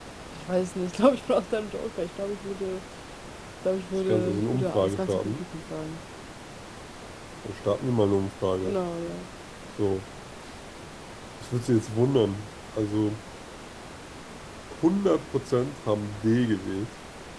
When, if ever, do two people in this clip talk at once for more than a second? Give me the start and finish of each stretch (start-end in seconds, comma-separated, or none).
4.1-5.4